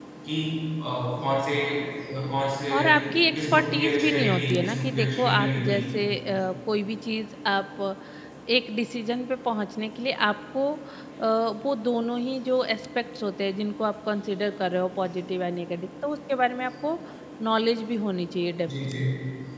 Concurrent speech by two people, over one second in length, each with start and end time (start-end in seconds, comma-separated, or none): 2.7-5.8